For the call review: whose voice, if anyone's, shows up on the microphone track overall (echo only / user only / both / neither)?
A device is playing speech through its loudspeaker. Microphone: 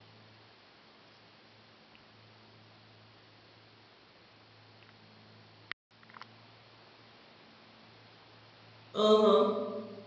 user only